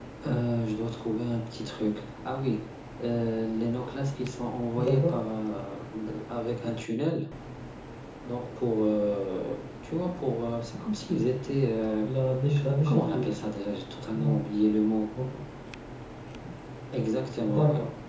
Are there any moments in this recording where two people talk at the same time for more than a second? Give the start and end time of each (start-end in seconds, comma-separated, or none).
none